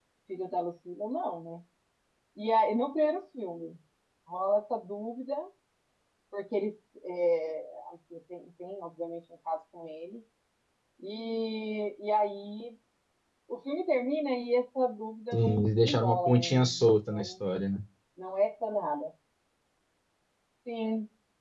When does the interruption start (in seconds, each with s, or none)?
15.3 s